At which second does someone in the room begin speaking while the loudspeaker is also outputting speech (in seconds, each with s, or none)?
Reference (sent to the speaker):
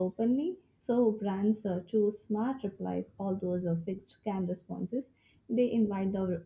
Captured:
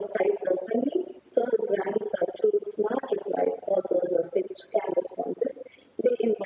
none